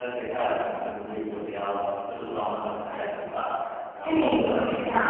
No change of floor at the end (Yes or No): No